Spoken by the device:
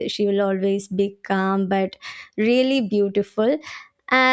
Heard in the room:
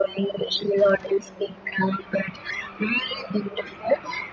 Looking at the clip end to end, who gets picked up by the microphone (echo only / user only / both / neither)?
echo only